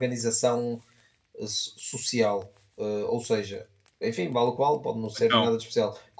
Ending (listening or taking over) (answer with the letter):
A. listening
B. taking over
A